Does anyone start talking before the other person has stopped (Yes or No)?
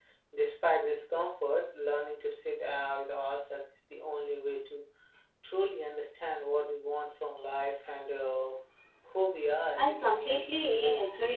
Yes